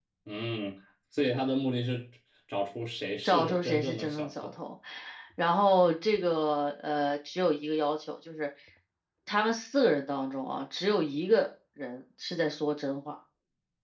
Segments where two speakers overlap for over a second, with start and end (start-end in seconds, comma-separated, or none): 3.2-4.5